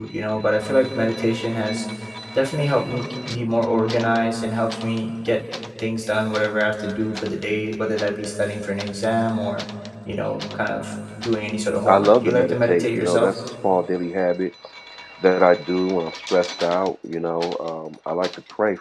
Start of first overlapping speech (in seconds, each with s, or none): 11.8 s